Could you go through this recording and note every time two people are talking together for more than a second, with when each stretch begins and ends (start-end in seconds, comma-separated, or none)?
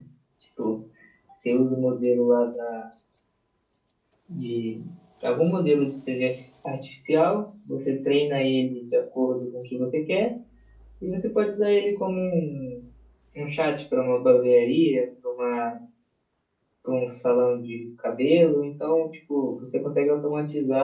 none